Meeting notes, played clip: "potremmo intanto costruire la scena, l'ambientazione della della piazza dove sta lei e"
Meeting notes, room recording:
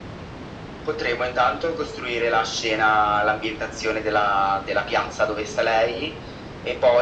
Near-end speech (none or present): none